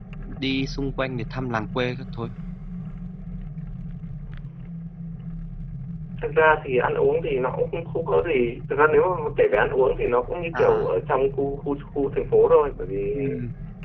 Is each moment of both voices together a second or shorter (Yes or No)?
Yes